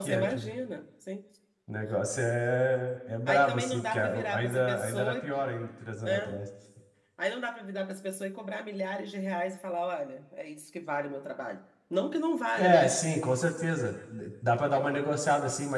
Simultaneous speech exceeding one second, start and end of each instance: 3.3-5.3

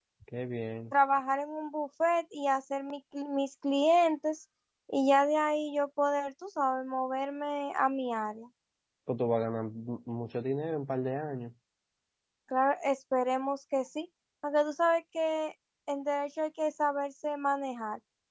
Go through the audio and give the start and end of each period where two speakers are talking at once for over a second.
none

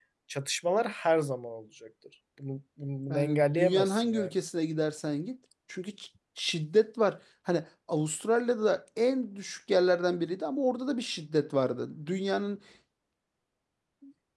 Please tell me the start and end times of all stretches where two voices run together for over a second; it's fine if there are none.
3.1-4.3

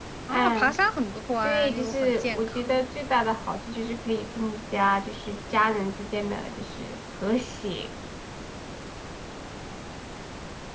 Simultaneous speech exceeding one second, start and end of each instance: 1.4-2.8

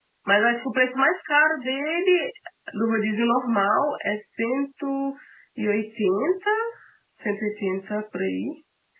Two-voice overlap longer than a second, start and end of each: none

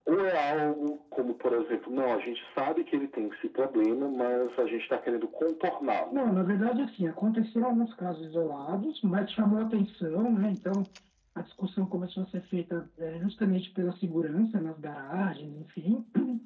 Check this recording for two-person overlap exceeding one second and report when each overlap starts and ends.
none

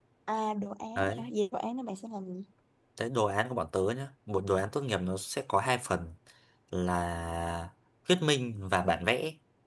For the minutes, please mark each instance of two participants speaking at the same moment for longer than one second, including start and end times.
none

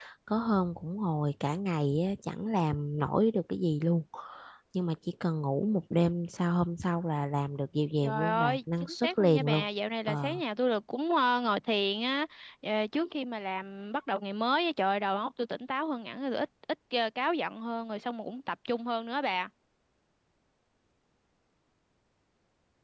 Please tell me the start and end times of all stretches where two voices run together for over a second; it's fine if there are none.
8.0-9.6

